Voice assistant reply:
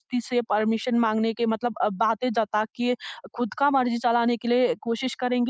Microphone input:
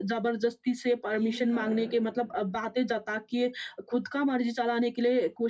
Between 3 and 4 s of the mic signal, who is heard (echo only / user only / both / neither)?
echo only